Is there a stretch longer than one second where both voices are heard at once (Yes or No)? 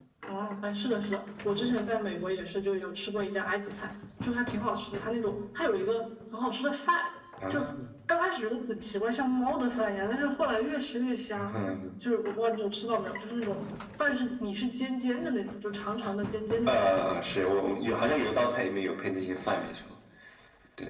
No